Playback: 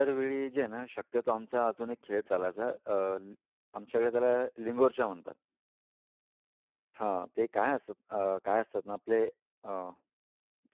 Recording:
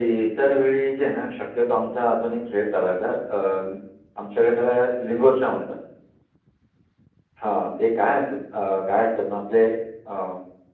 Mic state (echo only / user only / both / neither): echo only